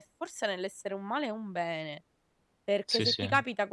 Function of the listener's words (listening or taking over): listening